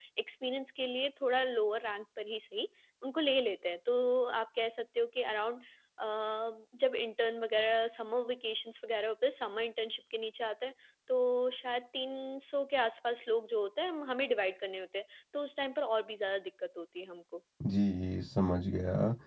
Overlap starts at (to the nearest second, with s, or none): none